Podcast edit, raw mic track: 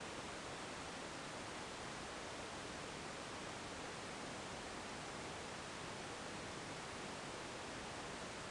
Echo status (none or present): none